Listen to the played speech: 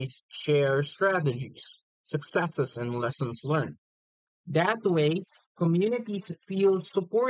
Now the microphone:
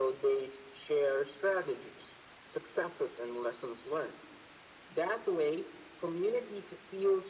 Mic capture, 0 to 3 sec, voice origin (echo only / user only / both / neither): echo only